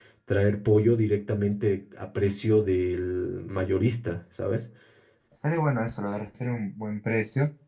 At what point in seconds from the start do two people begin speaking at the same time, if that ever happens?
none

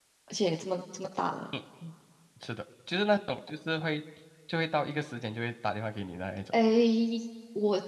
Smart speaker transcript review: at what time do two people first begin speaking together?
none

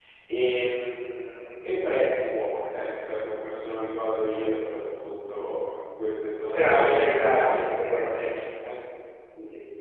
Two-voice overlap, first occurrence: 6.5 s

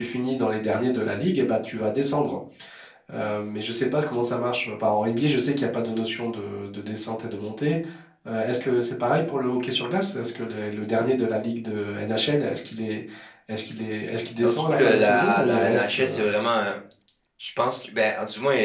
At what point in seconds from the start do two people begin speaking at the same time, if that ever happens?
14.4 s

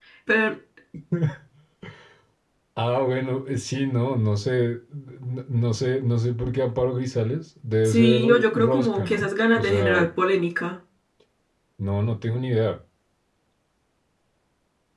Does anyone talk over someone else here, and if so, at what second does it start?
7.8 s

